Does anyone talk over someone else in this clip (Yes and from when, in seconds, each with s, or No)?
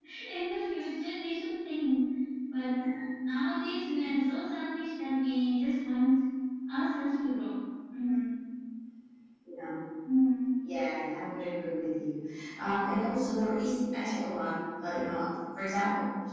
No